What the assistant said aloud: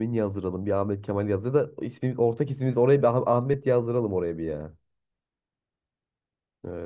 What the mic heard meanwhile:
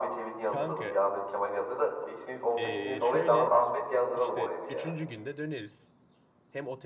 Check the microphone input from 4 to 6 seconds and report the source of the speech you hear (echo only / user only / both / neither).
both